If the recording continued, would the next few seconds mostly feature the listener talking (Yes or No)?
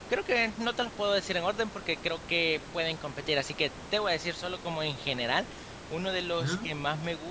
No